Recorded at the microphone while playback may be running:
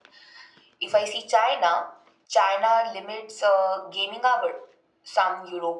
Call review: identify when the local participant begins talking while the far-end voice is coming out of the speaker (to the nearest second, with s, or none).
none